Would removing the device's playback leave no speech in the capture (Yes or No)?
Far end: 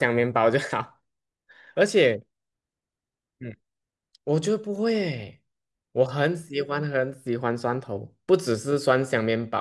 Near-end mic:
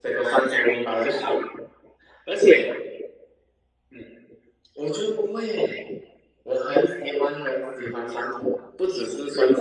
Yes